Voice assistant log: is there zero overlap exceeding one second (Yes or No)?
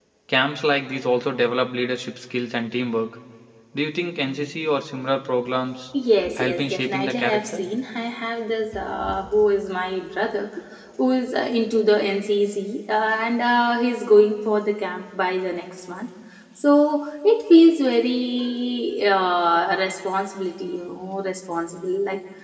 No